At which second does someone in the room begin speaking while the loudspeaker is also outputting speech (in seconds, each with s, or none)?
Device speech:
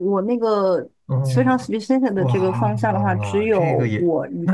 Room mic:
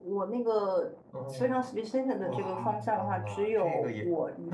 none